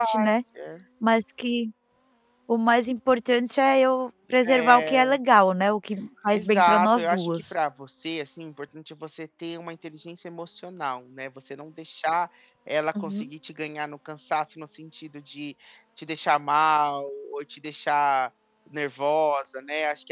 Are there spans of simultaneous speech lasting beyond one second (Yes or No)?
Yes